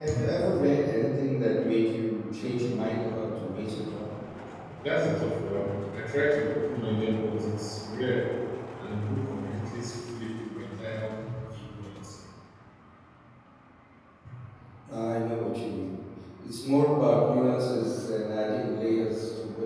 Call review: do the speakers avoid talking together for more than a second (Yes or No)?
Yes